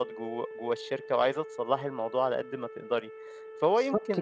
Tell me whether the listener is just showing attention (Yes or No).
Yes